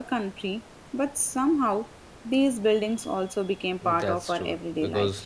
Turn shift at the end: Yes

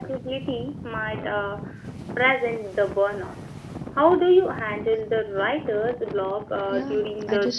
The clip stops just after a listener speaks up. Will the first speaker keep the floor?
No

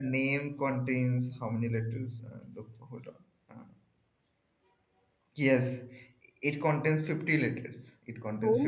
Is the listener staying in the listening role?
No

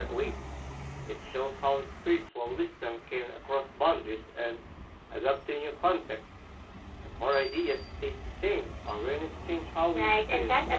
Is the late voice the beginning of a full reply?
Yes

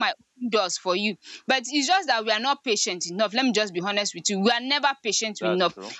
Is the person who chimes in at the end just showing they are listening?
Yes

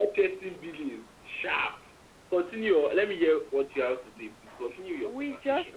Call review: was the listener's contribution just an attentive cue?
No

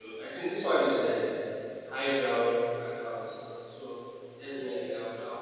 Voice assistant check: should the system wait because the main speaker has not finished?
Yes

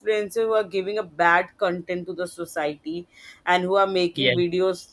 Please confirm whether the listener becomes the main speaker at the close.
No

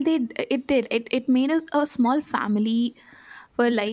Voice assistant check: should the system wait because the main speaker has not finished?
Yes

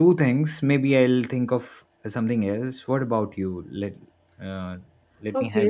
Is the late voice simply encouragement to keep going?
No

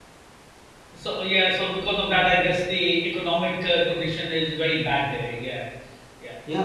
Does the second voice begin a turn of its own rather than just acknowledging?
Yes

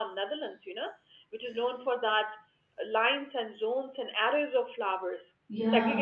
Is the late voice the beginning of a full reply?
No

